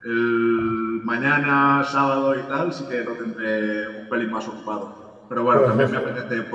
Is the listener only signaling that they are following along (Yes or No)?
Yes